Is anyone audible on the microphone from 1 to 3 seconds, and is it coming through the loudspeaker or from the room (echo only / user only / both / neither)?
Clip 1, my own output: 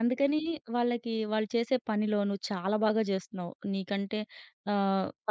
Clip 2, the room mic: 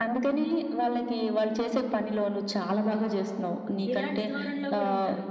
echo only